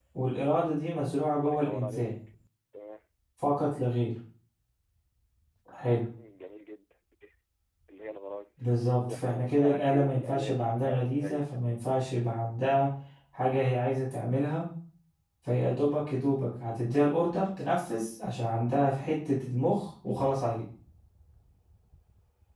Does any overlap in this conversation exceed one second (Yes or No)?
Yes